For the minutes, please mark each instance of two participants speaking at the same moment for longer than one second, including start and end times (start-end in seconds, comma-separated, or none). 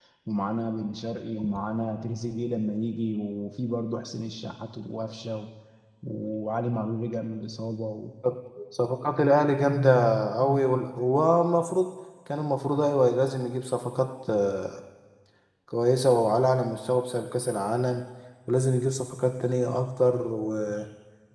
none